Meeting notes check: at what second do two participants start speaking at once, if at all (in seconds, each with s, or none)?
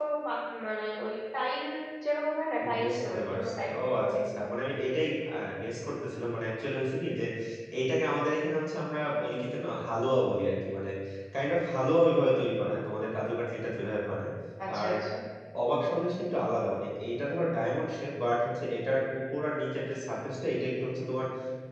2.8 s